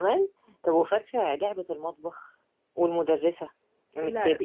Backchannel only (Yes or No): Yes